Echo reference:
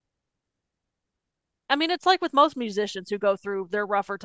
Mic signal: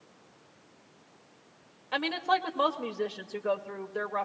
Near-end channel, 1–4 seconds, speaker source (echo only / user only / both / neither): echo only